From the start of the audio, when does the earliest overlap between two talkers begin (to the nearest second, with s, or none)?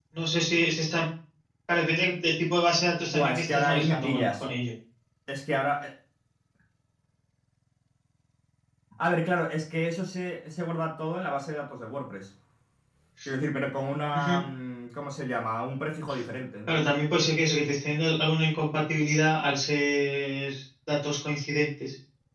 3 s